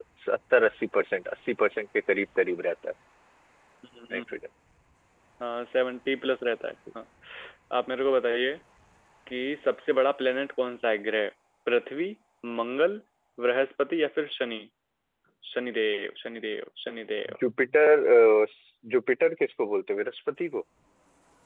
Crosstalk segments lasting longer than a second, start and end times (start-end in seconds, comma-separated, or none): none